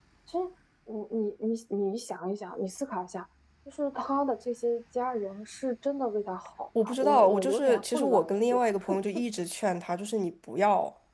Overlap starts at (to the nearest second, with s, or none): 7 s